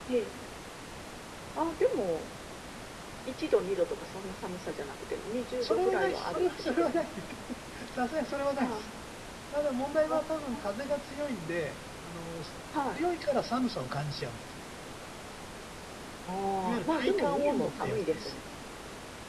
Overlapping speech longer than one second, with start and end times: 5.6-7.1, 16.6-18.3

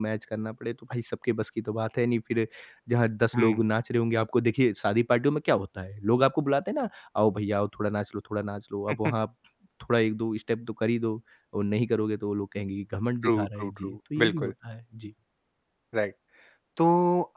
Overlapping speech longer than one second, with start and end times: 13.2-14.5

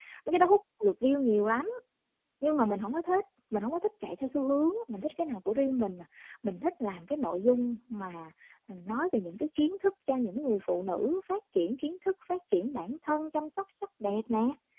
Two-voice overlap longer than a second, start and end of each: none

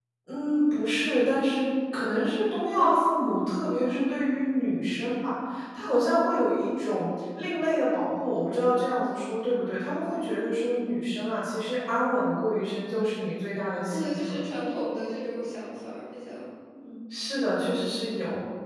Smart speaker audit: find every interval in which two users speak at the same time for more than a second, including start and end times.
none

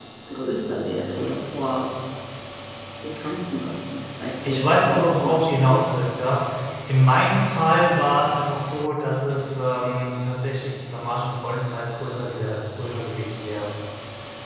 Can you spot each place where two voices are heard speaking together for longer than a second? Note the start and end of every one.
4.4-5.8

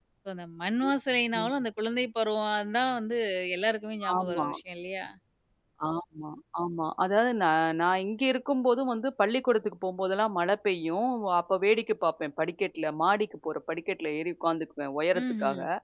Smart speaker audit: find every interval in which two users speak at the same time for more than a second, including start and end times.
none

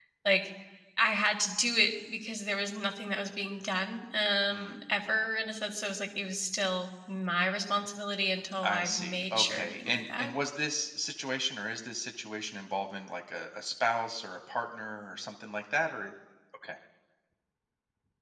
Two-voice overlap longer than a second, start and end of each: 8.6-10.3

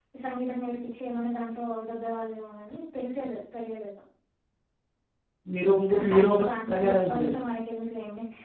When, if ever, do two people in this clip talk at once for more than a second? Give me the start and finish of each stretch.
5.9-7.4

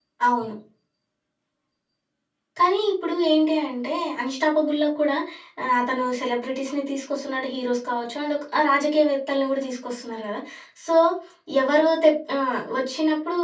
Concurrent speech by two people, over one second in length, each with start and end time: none

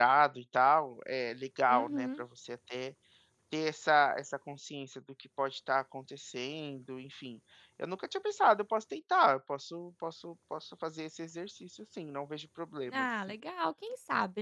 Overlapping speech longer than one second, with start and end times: none

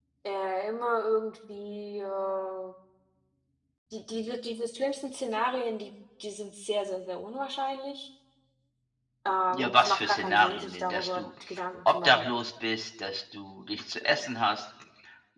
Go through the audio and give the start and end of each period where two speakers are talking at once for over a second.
9.6-11.2

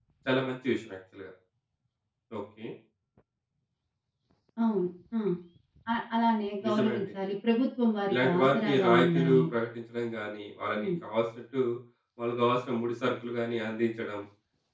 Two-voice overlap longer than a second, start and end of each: 8.1-9.4

